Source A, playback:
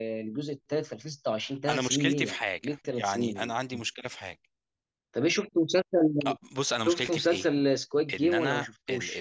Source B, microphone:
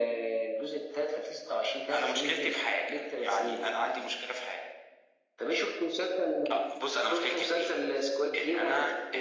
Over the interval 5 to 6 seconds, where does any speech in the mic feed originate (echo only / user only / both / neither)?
echo only